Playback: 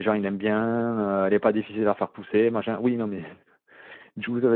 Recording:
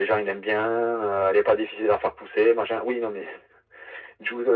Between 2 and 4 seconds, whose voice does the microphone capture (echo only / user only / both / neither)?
echo only